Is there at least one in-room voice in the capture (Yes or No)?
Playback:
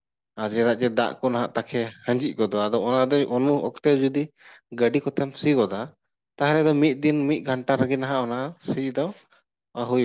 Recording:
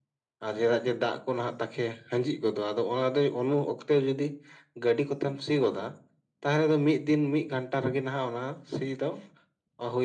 No